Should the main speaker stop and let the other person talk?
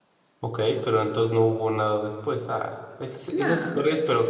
No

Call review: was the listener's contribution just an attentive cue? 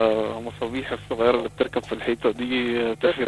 Yes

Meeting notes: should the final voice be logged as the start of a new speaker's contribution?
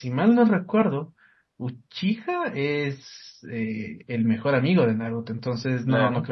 No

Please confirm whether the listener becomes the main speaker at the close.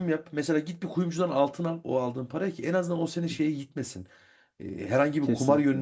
No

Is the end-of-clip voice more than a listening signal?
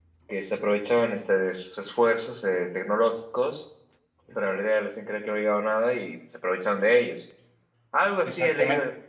No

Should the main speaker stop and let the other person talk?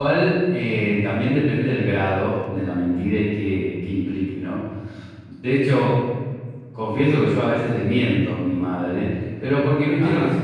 No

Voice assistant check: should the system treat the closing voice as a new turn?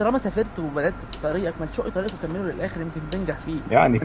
Yes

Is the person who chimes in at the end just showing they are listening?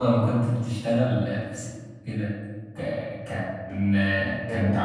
Yes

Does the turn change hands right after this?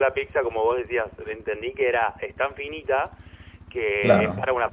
No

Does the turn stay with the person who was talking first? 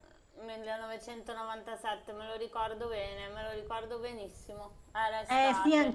No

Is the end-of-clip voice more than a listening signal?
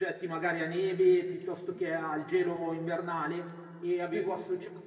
No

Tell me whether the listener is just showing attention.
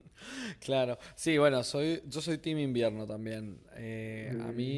Yes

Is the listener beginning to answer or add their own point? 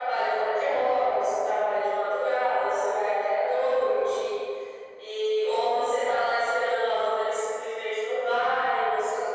No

